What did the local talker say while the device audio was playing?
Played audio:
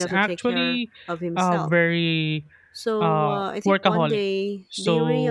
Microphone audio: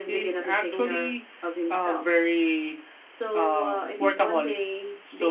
So it,

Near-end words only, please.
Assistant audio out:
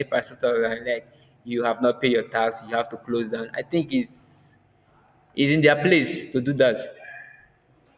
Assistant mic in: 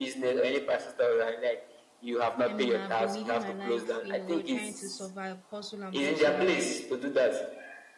I mean, I've been living my life, you know, trying to survive, hustle and bustle here,

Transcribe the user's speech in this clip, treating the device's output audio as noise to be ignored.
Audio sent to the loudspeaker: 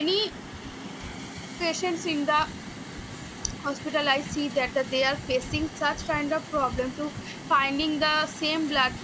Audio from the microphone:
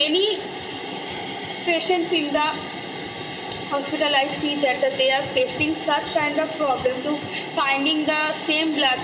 none

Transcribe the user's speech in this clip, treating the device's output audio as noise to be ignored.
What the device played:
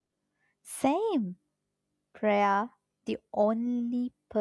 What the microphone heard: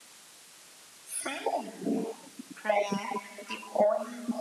none

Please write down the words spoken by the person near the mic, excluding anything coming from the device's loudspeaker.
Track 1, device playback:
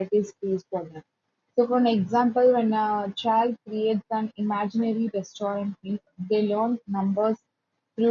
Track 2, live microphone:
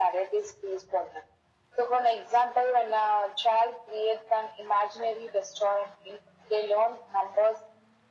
none

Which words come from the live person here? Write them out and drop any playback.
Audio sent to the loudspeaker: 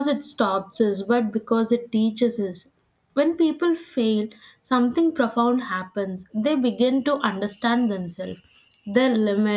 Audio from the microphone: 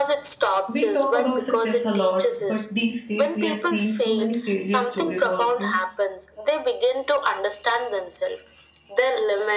we talk about success a lot, but these days we are seeing so many failure stories also.

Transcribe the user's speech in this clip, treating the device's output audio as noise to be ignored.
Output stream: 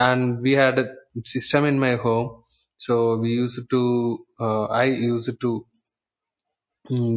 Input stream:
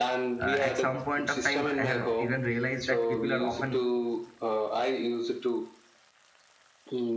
uh, at some point of time i have even realized that people are often

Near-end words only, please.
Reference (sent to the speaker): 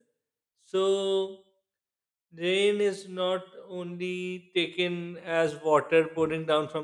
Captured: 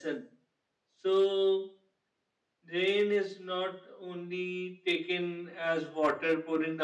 none

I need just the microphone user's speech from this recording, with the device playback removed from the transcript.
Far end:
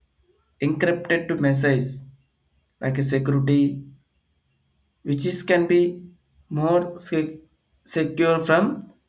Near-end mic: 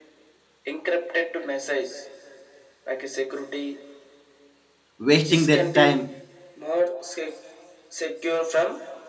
wasting their time

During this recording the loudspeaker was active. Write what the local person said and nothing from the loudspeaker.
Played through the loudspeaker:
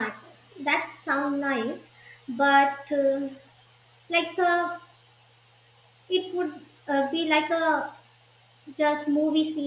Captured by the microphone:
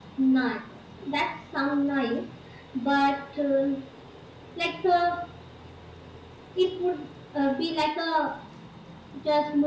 none

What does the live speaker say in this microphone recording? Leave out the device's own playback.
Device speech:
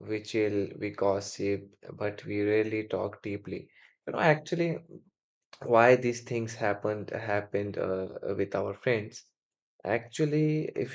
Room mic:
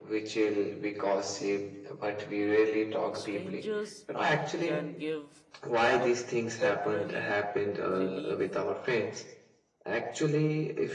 strangers can give a temporary relief

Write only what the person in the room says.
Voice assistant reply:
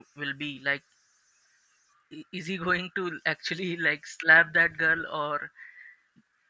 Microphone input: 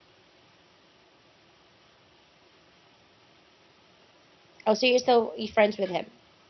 oh, so you're still you're friends with him.

